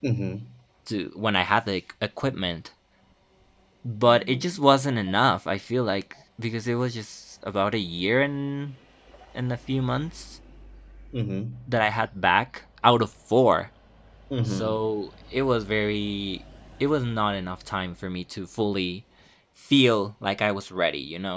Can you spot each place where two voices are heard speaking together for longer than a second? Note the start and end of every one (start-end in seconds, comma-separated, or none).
none